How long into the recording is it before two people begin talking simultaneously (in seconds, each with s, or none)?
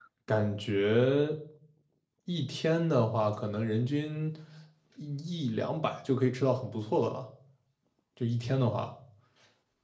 none